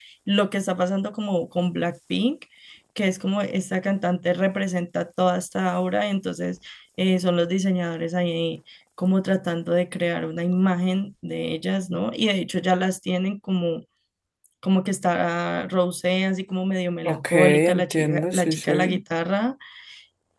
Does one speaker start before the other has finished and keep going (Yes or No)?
Yes